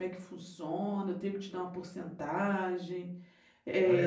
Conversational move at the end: taking over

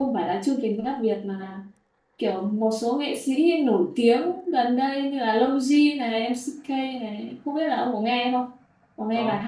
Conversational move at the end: taking over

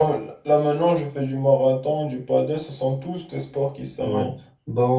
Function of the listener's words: taking over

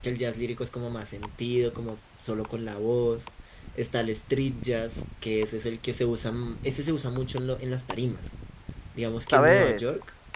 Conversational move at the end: listening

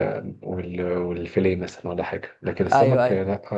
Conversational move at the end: listening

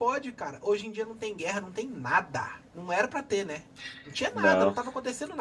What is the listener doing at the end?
listening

